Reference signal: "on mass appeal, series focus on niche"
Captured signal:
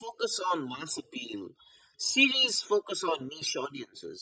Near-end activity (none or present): none